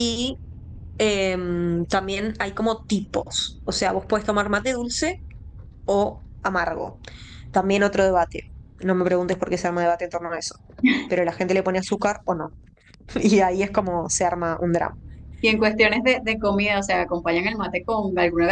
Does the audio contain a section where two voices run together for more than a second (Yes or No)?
No